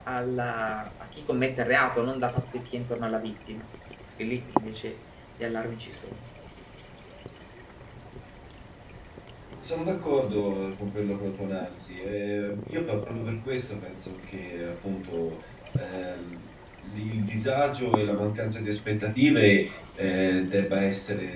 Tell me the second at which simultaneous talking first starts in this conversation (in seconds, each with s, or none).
none